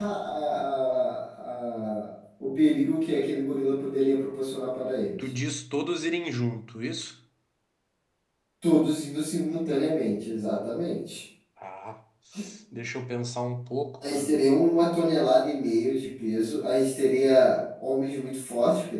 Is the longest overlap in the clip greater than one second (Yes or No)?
No